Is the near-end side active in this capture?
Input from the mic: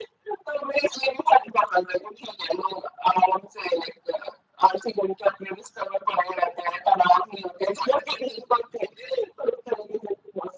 No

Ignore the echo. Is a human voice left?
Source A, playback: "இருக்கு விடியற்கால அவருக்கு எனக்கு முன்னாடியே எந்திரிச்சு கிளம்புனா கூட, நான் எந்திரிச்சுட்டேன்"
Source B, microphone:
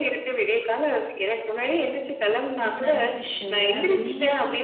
Yes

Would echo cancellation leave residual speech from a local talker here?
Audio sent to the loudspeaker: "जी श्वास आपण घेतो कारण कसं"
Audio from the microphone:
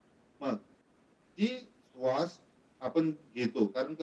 No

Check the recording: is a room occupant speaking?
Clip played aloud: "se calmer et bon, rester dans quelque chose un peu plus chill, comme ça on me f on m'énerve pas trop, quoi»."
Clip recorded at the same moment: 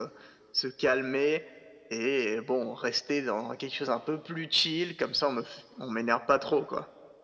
No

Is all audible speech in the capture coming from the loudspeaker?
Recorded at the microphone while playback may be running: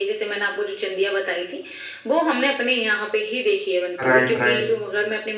No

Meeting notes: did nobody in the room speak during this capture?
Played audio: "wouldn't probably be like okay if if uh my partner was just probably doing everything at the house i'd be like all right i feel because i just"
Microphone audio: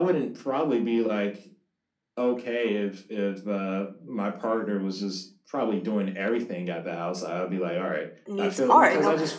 No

